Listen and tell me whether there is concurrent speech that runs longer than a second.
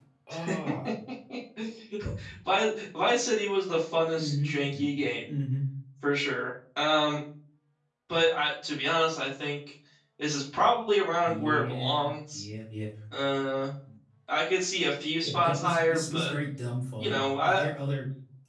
Yes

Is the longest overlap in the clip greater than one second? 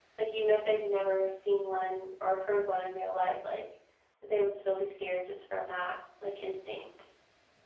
No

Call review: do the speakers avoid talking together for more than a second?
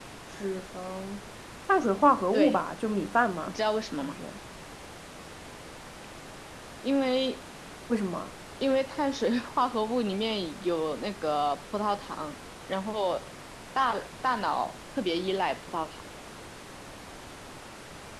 Yes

